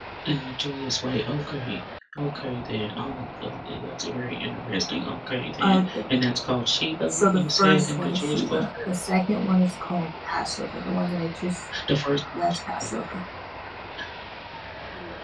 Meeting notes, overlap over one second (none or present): present